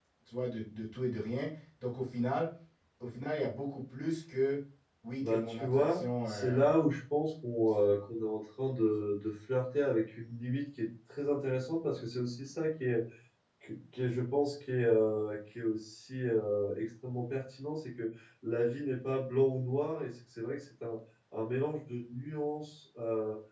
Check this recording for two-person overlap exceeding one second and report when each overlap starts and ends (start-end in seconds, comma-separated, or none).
5.2-6.7